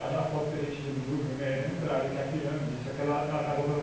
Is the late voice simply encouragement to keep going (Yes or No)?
Yes